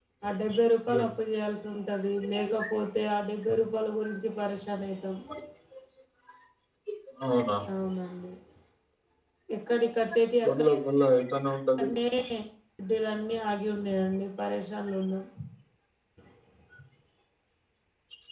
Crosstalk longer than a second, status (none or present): none